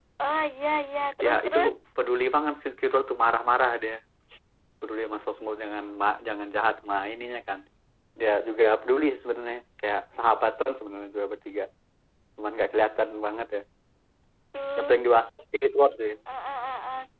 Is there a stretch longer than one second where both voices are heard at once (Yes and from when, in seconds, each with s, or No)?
No